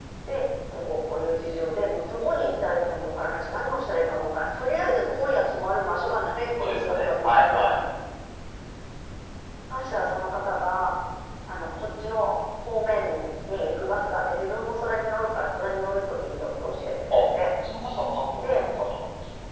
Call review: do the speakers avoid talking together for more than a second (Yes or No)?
No